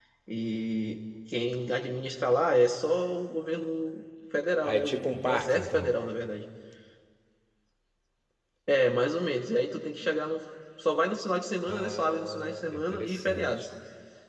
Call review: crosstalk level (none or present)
present